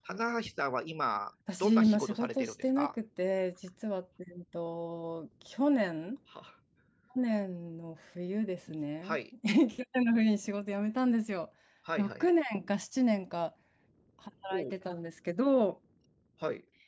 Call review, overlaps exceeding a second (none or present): present